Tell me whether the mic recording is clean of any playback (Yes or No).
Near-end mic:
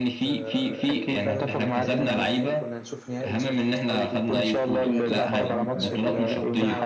No